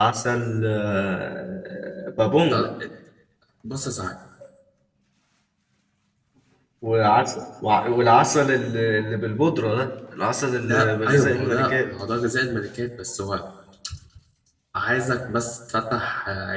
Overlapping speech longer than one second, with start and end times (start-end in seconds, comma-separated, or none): 10.6-11.9